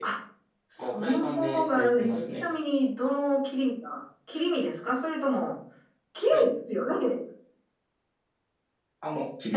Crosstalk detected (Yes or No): Yes